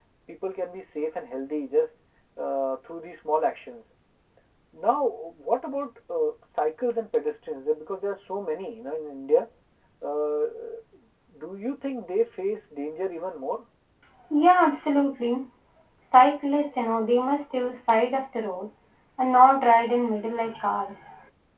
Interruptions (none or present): none